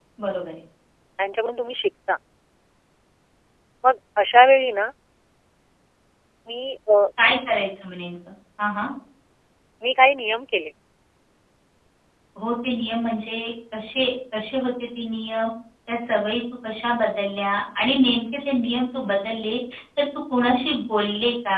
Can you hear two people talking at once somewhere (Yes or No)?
No